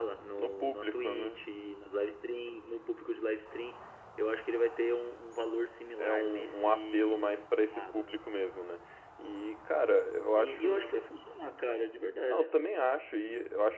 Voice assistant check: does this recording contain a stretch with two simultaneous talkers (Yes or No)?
Yes